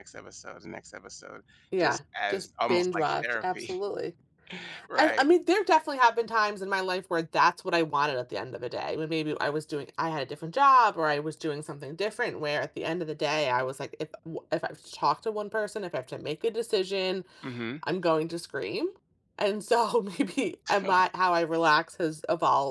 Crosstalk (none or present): present